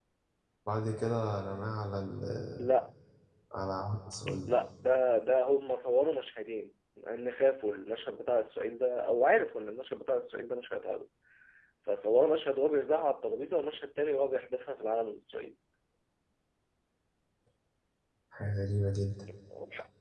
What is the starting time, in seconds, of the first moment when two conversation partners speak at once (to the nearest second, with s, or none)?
none